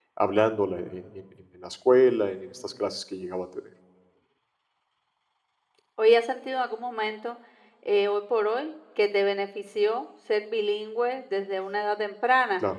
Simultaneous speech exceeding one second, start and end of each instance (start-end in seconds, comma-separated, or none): none